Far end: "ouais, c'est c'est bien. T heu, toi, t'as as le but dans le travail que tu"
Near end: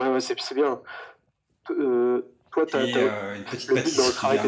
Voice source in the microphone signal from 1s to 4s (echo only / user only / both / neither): both